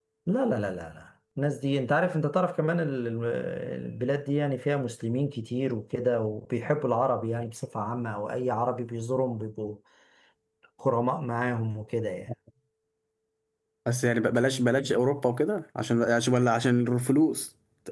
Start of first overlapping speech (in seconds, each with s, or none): none